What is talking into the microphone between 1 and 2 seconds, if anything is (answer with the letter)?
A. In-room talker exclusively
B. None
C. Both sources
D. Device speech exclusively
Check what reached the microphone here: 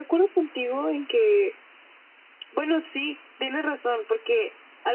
D